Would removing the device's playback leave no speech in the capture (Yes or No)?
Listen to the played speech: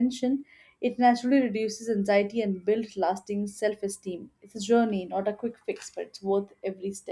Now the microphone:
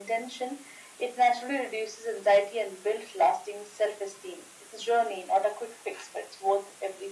Yes